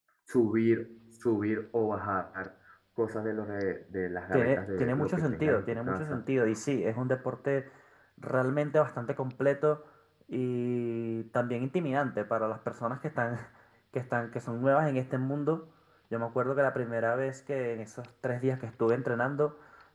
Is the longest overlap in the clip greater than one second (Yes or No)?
Yes